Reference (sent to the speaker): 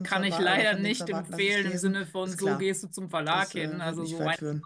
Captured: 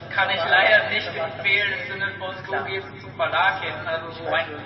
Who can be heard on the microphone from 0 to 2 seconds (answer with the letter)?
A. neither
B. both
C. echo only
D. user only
C